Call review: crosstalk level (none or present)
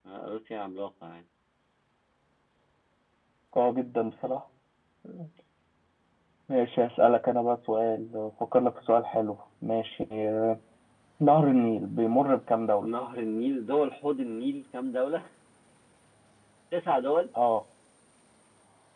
none